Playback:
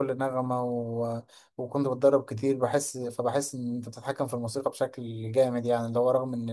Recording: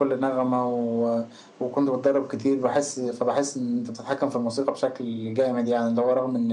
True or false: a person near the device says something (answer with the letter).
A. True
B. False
B